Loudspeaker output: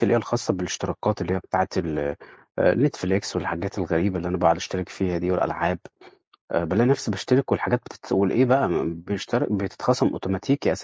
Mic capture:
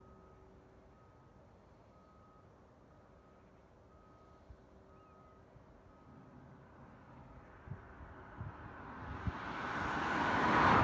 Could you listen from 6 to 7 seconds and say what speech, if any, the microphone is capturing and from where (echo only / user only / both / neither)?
neither